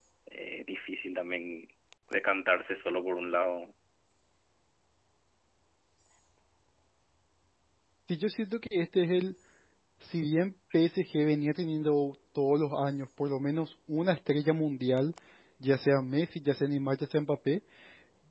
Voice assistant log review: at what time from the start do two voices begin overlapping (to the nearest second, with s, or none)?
none